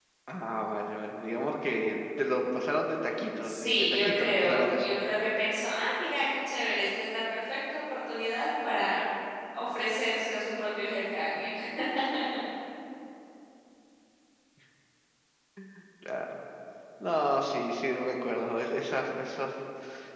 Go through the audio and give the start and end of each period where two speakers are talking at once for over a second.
3.4-4.9

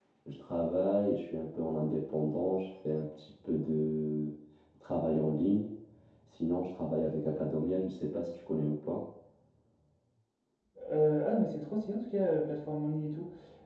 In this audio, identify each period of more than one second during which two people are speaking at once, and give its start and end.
none

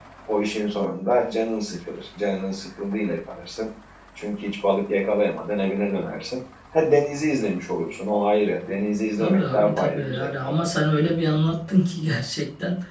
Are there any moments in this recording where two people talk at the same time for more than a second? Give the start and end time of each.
9.2-10.6

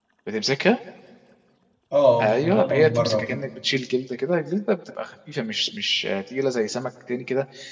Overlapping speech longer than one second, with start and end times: 2.2-3.4

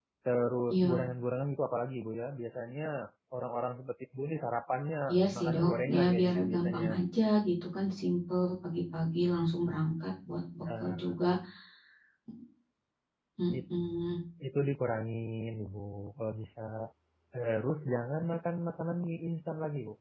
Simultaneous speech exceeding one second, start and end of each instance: 5.3-6.9

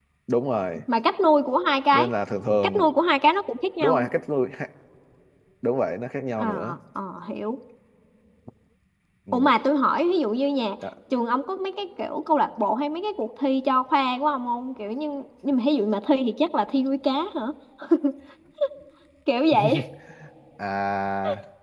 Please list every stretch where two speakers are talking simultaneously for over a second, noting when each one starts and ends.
none

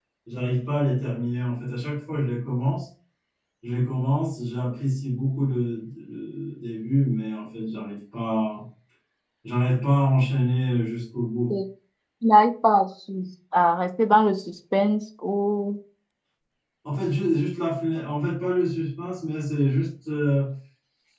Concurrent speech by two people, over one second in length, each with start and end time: none

